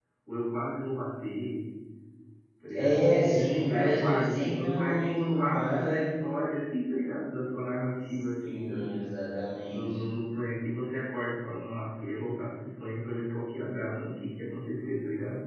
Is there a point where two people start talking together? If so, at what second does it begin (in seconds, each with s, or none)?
2.7 s